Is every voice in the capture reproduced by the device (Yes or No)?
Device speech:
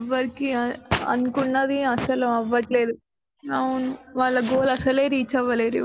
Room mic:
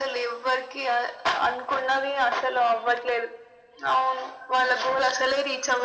Yes